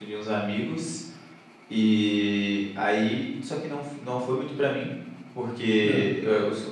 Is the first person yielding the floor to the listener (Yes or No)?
No